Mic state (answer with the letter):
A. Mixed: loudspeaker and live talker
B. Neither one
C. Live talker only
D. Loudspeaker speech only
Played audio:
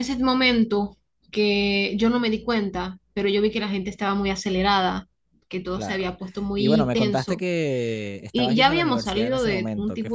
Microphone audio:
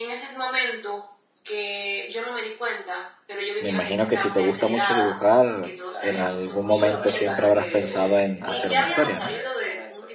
A